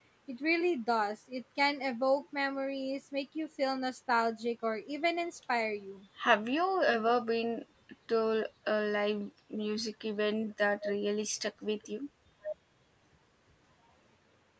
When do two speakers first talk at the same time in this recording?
none

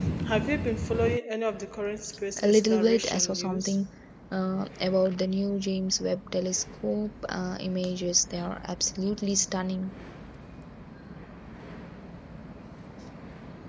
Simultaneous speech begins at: 2.4 s

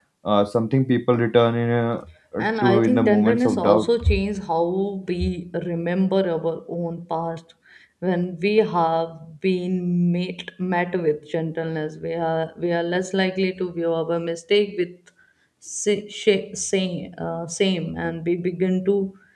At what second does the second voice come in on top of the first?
2.6 s

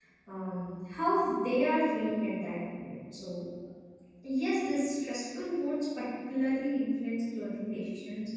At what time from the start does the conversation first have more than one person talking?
none

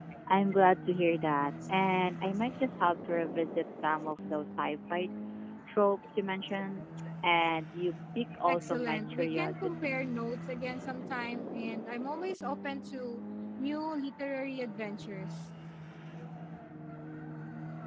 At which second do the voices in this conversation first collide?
8.4 s

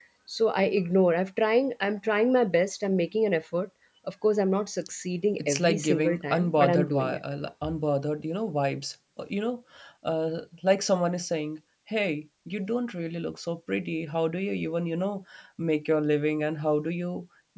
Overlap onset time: 5.4 s

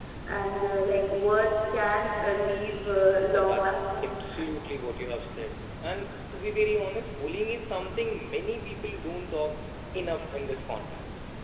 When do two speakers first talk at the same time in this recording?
3.3 s

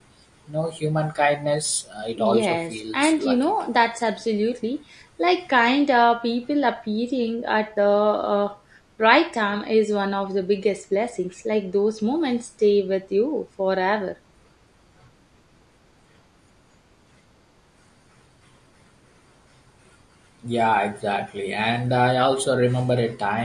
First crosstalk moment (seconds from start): 2.2 s

